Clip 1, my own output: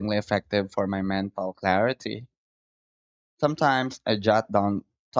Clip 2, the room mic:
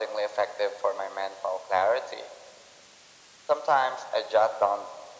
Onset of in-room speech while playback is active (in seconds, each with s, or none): none